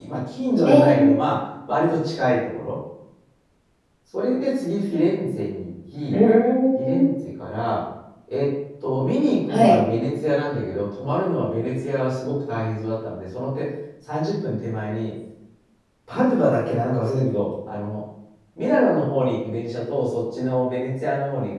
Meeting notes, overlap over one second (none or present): none